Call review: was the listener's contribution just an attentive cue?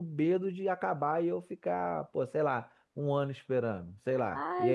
No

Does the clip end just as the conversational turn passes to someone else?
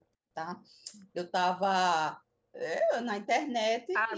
Yes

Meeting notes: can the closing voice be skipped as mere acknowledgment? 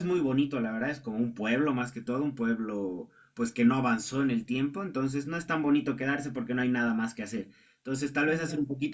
Yes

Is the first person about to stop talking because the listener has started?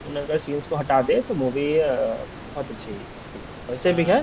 No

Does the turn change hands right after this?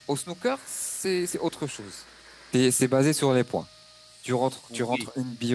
No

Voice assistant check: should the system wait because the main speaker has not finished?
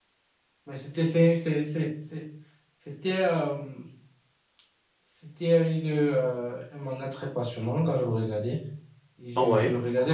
Yes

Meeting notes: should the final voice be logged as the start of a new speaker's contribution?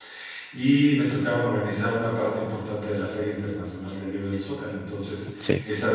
No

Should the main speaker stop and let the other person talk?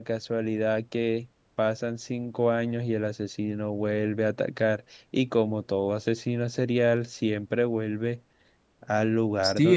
Yes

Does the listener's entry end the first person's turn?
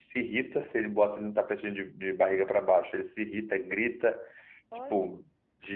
No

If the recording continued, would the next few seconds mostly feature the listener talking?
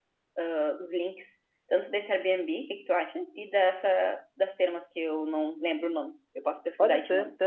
Yes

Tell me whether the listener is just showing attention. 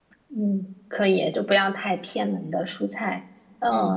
Yes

